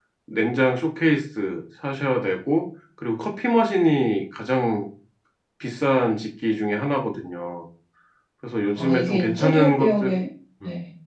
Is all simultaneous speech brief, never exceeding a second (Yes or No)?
No